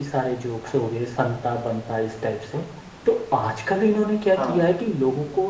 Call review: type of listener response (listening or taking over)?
listening